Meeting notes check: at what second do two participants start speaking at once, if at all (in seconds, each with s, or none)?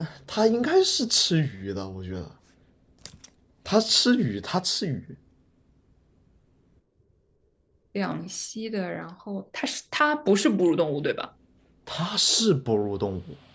none